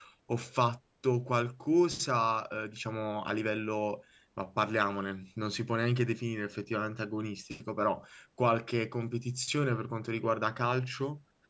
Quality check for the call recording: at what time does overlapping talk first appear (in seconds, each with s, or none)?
none